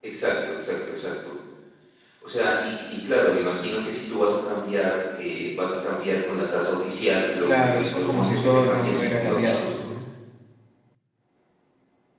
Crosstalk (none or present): present